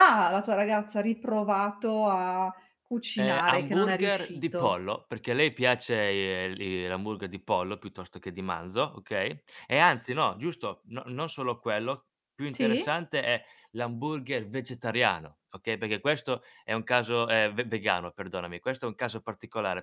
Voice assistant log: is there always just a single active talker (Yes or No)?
No